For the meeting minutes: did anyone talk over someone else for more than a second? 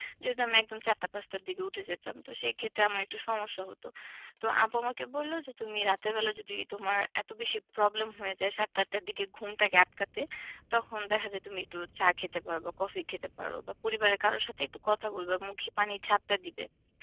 No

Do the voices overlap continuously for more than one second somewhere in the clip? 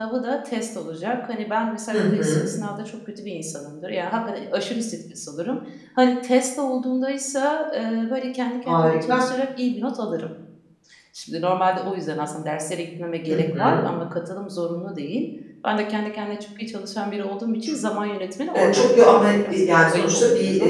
Yes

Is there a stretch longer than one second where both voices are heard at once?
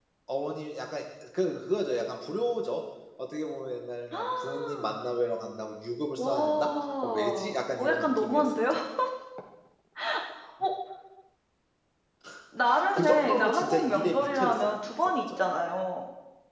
Yes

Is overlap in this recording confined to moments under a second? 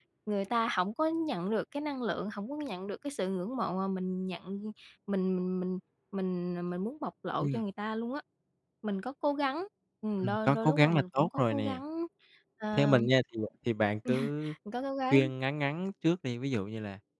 No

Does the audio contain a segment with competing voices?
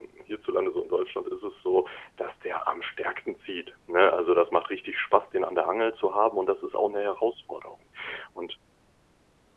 No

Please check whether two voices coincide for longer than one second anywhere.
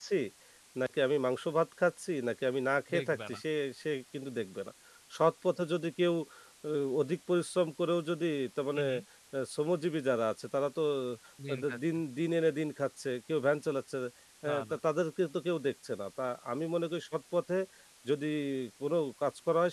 No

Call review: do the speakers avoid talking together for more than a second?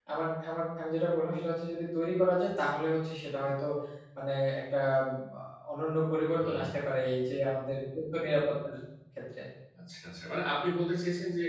Yes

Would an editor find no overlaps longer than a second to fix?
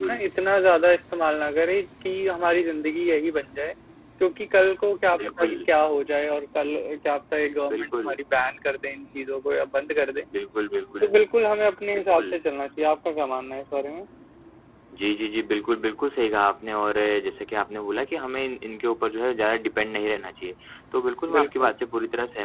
Yes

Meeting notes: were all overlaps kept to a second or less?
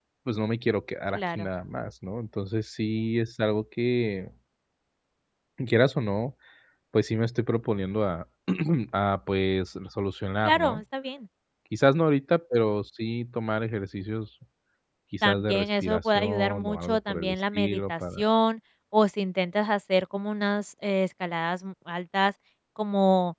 No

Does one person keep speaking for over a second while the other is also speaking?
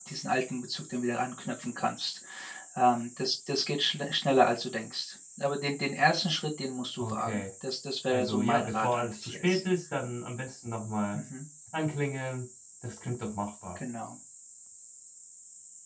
Yes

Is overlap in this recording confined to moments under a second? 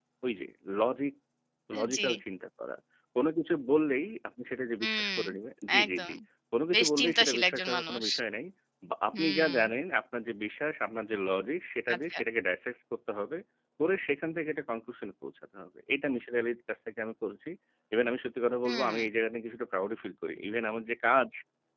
No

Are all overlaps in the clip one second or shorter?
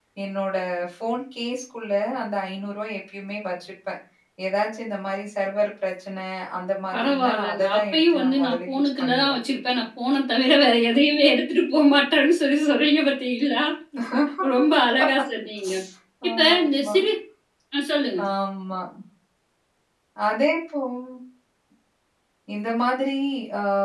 No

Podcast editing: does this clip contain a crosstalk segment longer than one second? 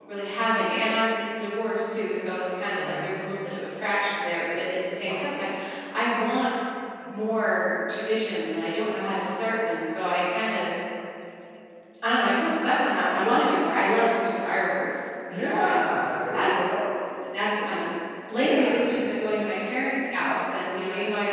No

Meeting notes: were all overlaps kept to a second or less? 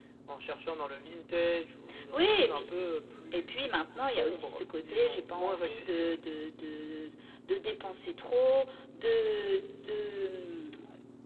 No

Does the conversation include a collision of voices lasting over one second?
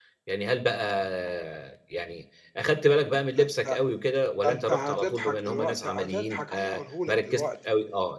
Yes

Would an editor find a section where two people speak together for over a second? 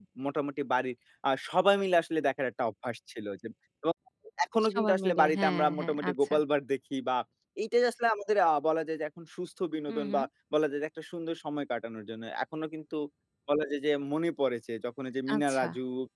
Yes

